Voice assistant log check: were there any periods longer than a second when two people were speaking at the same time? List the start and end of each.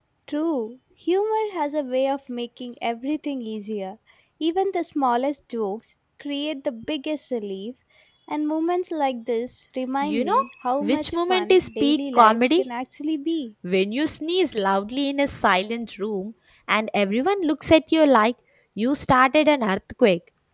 10.8-12.6

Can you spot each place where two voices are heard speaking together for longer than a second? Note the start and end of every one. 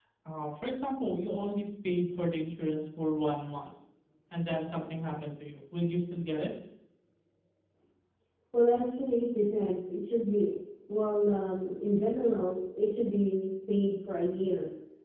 none

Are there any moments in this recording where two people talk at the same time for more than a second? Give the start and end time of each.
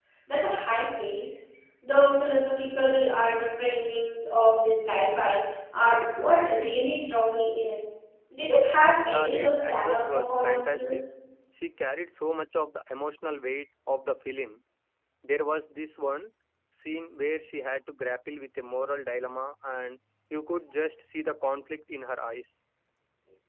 9.1-11.0

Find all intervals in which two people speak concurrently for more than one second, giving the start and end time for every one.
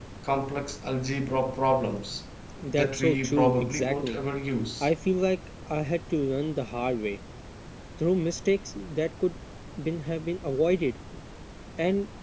2.7-4.2

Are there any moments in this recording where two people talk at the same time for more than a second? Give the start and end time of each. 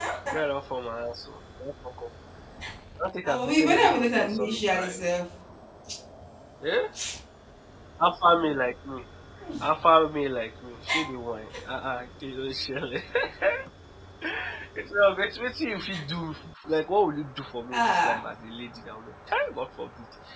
3.2-5.0

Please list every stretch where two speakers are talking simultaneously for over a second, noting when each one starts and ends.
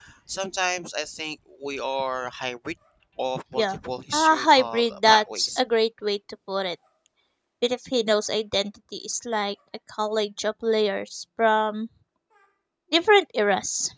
4.1-5.6

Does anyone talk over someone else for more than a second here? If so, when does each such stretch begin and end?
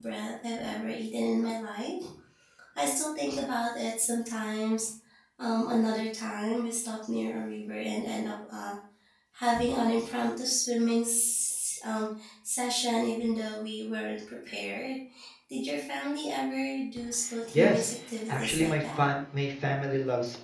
17.5-19.0

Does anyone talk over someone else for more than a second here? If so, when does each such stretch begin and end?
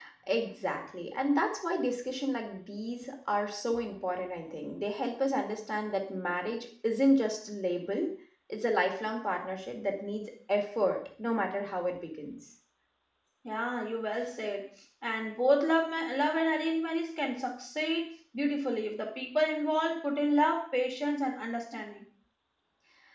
none

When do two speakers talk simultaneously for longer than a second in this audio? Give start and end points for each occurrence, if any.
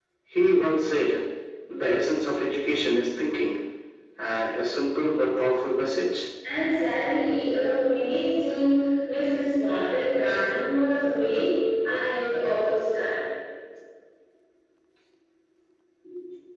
none

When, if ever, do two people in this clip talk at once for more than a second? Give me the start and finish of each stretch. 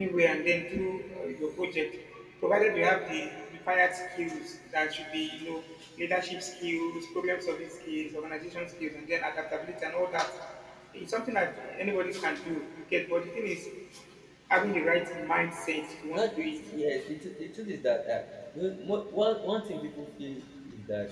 none

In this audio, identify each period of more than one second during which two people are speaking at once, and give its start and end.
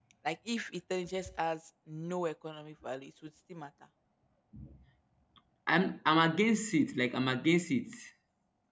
none

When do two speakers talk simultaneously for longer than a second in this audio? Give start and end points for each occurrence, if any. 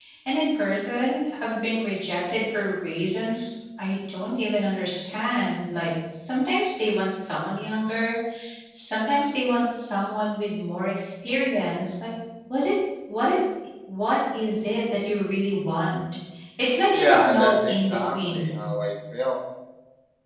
16.9-18.6

